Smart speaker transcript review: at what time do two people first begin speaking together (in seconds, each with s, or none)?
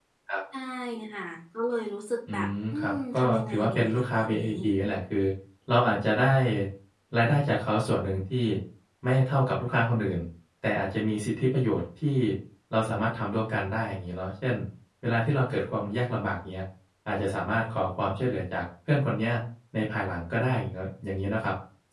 2.3 s